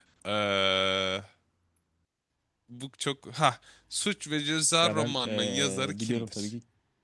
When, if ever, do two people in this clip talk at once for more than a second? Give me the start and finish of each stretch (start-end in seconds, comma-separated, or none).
4.8-6.5